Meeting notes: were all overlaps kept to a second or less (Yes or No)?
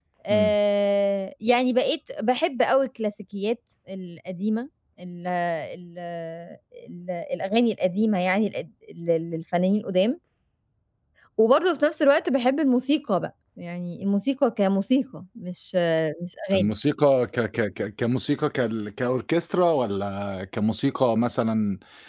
Yes